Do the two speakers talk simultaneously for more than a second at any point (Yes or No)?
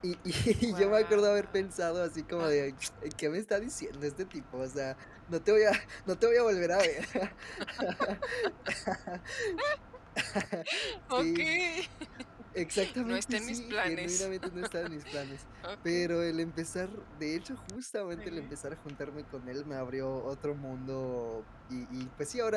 Yes